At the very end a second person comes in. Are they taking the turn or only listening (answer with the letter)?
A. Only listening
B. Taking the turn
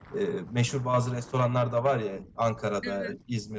A